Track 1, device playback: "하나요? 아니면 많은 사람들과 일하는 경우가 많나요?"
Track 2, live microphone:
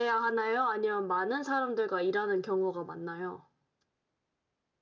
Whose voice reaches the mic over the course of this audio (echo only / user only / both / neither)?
echo only